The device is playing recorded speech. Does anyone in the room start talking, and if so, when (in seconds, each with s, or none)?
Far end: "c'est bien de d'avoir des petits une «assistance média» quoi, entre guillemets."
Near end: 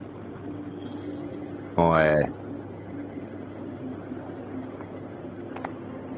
1.8 s